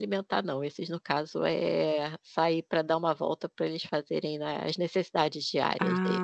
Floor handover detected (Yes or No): Yes